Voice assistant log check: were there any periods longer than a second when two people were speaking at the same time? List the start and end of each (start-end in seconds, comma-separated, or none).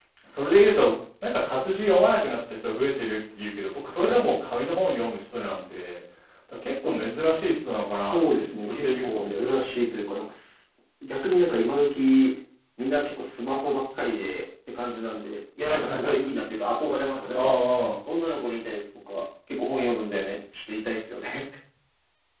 8.1-9.7